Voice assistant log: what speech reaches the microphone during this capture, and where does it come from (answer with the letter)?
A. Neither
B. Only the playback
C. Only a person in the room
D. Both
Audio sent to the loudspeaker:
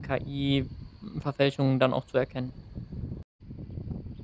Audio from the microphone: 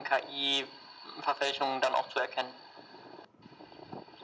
B